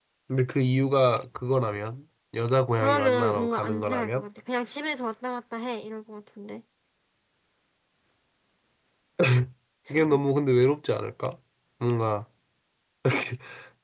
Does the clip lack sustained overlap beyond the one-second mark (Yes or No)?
No